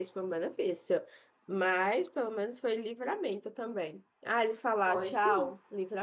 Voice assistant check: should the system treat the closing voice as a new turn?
No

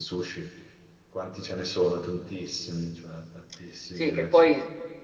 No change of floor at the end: No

